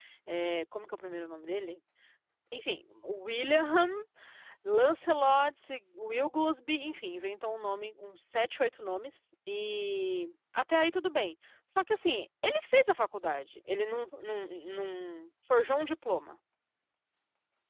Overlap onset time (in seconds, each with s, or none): none